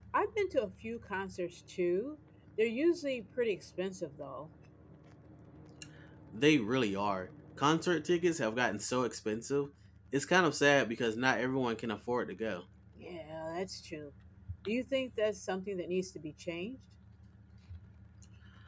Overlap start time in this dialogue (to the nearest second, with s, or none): none